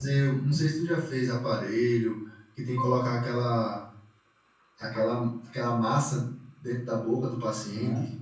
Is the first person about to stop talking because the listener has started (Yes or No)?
Yes